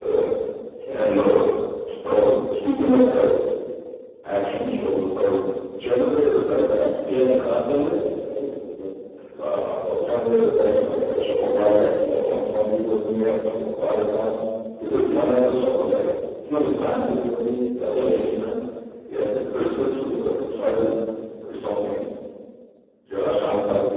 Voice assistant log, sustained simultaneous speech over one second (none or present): none